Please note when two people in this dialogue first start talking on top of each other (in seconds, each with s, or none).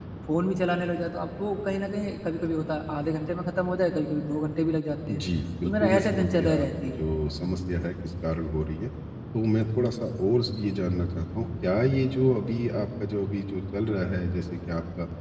5.6 s